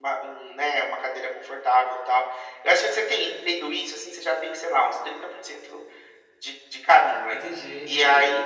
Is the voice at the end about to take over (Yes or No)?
No